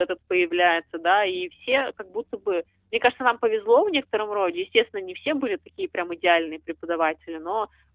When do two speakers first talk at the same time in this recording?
none

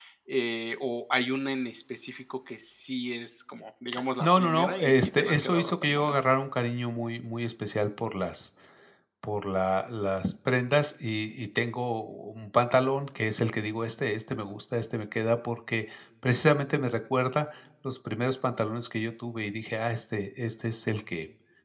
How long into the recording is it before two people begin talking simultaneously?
4.2 s

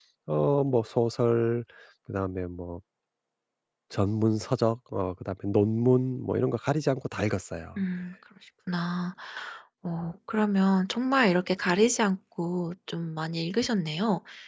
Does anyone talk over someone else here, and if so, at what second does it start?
none

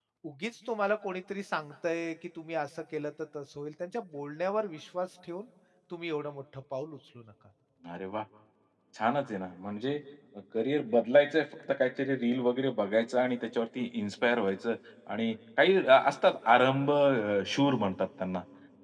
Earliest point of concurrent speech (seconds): none

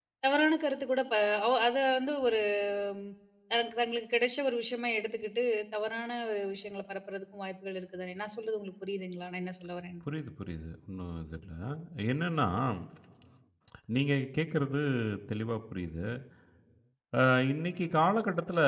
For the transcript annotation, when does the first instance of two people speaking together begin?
none

